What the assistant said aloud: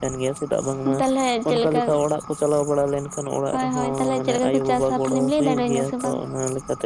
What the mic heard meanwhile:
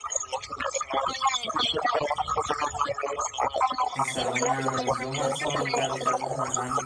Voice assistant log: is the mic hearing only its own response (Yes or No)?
No